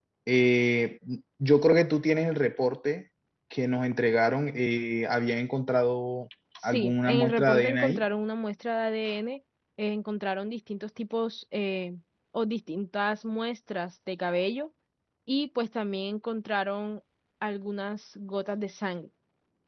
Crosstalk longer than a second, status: present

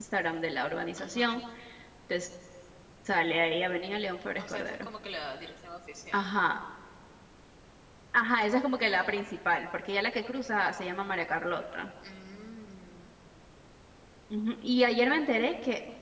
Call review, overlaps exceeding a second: none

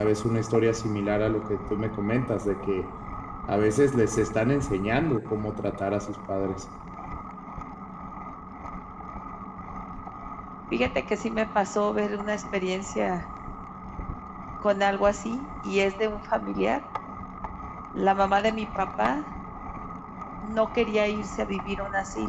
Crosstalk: none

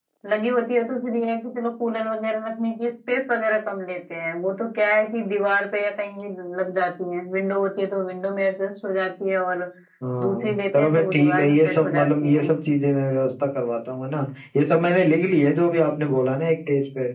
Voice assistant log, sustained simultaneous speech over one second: present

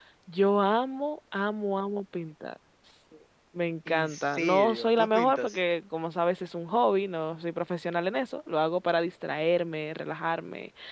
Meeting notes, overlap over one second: present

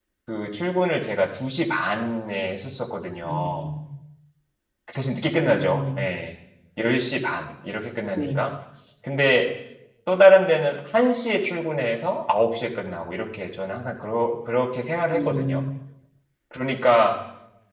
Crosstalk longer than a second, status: none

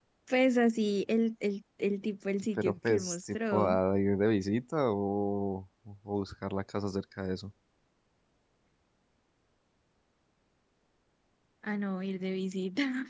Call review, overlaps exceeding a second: present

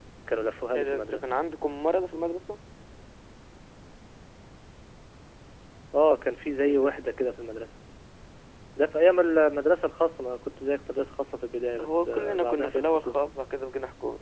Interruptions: present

